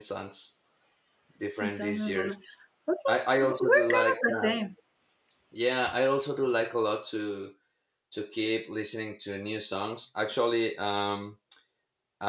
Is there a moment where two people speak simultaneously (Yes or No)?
Yes